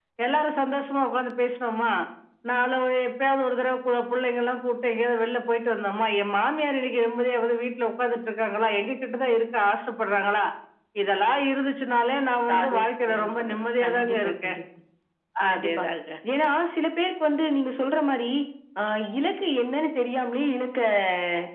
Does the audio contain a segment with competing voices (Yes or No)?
Yes